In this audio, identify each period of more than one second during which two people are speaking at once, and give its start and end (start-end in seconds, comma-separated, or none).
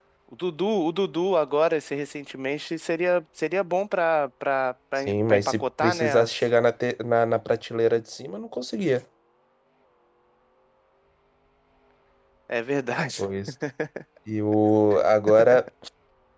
5.0-6.3